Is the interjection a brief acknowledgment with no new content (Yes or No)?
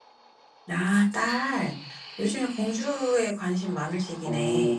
No